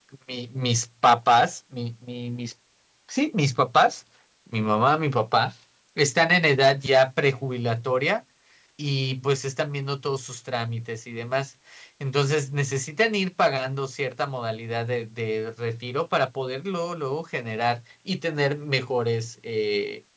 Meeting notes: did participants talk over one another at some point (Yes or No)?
No